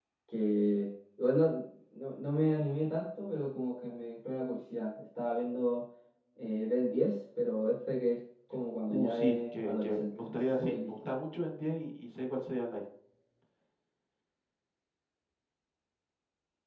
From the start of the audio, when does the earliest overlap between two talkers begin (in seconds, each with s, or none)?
8.9 s